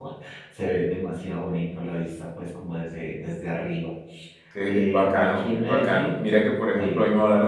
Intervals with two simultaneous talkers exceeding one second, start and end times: 4.7-6.2

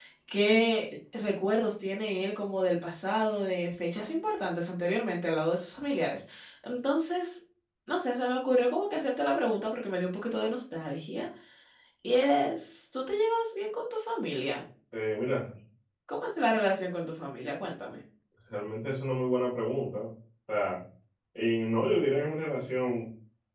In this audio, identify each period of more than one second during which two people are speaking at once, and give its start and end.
none

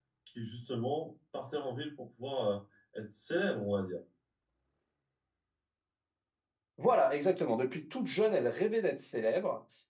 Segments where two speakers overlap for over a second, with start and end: none

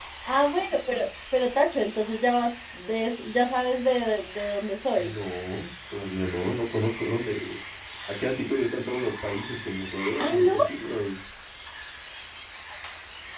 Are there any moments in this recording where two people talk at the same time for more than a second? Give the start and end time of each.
none

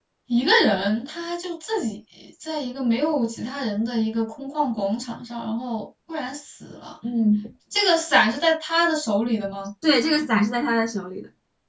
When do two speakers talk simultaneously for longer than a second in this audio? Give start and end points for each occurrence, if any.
none

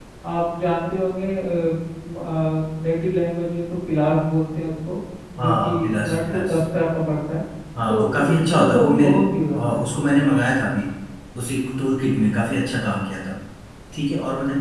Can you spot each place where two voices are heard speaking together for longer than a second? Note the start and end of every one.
5.4-6.6, 7.9-9.1

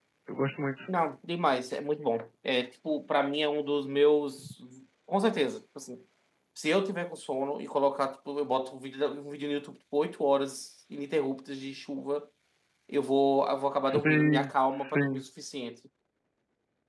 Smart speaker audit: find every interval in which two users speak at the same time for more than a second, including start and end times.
13.9-15.2

